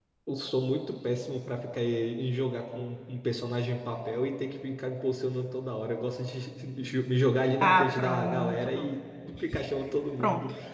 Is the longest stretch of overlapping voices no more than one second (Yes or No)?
No